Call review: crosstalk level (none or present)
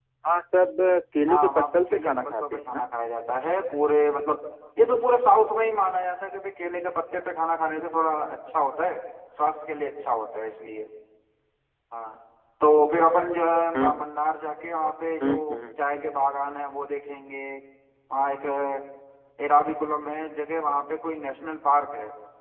present